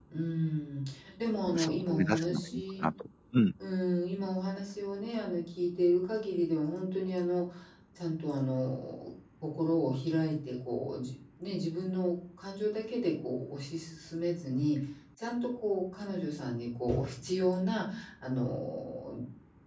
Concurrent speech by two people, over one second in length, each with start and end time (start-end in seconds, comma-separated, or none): 1.5-2.9